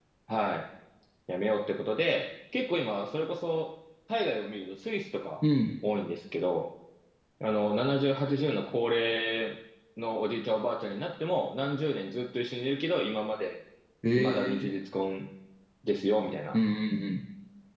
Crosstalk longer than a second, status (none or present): none